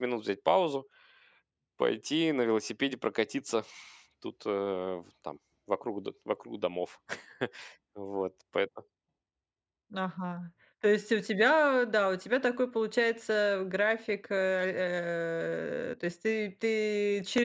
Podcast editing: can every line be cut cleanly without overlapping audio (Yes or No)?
Yes